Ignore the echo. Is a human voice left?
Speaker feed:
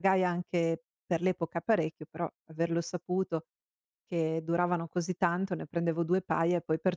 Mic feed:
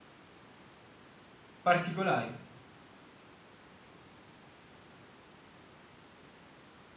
Yes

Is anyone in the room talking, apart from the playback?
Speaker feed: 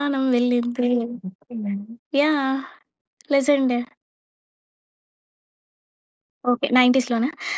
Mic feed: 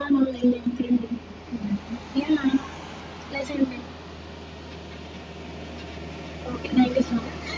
No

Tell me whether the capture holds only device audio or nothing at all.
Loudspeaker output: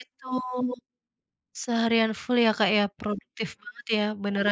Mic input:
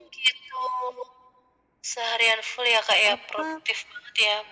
No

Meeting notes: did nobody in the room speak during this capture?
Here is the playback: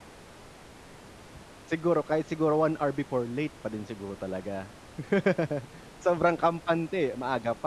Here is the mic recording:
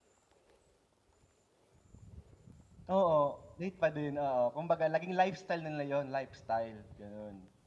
No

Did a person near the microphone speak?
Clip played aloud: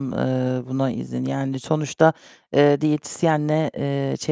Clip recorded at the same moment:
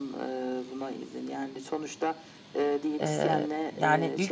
Yes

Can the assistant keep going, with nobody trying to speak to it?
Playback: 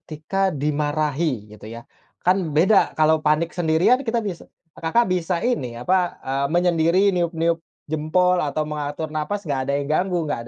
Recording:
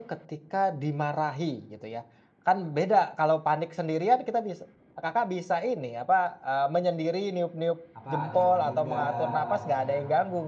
No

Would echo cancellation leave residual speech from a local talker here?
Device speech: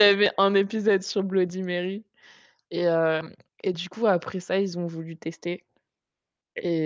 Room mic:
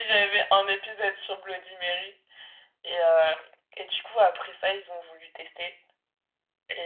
No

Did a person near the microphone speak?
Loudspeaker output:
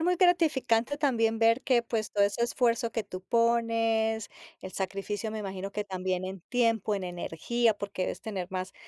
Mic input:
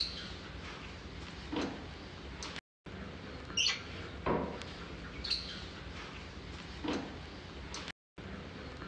No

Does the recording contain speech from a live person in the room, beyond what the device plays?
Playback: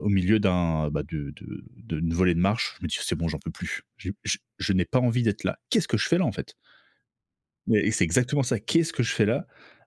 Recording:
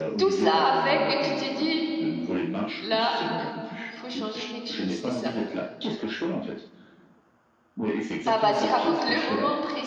Yes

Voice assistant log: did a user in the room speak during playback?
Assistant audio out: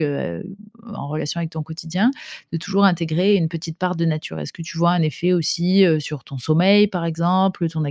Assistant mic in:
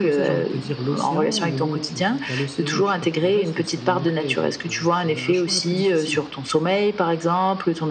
Yes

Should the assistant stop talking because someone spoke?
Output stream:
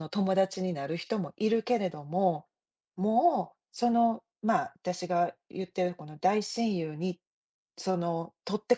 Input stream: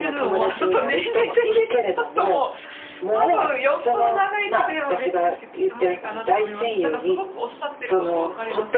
Yes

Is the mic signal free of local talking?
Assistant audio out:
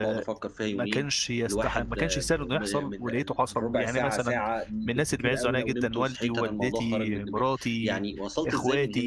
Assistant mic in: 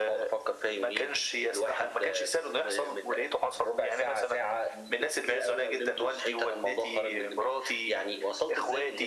Yes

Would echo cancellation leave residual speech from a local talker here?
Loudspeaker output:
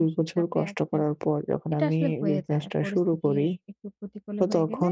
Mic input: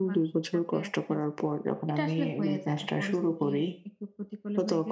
No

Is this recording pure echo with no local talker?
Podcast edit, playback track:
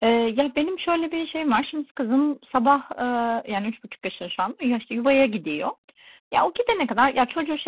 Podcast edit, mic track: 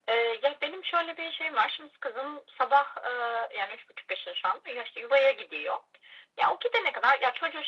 Yes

